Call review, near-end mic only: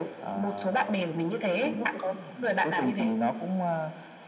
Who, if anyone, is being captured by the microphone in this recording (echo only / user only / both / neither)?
both